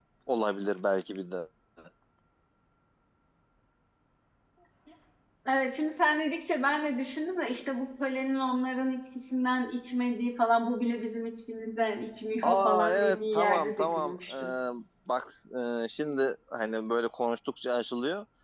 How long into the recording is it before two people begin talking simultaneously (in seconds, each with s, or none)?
12.4 s